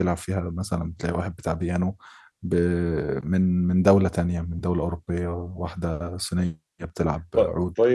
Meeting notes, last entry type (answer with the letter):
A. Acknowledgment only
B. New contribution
B